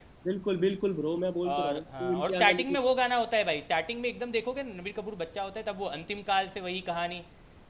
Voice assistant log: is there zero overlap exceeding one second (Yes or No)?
No